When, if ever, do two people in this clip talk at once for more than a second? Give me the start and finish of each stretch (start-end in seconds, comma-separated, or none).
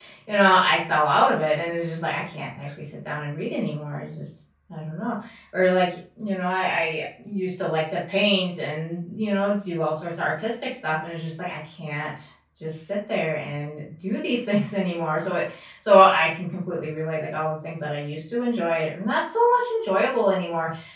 none